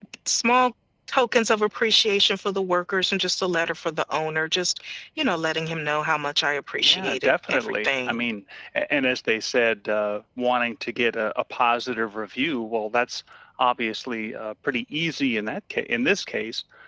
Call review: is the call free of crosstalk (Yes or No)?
No